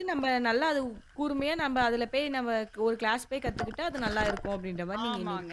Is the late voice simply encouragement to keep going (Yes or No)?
No